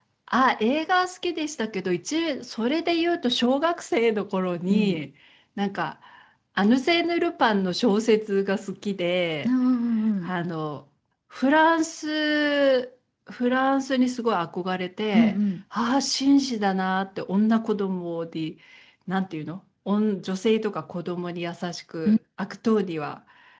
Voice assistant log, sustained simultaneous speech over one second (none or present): none